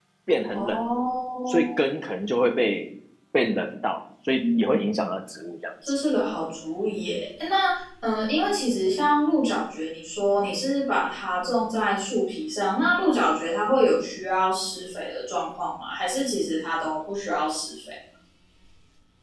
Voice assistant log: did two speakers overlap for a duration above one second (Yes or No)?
No